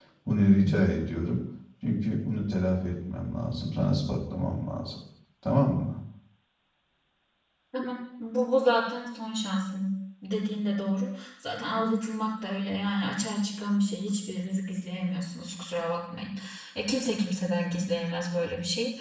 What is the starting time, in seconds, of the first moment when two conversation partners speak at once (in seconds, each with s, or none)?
none